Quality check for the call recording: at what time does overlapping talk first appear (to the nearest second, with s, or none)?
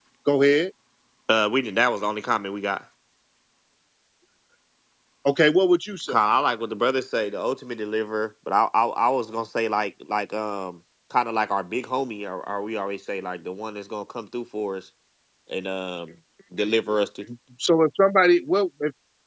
none